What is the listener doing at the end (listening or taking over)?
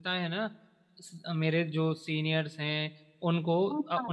listening